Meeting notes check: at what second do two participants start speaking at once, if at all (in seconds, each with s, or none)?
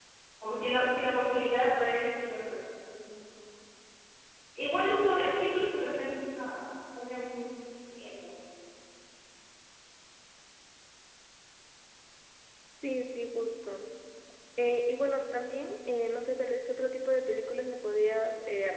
none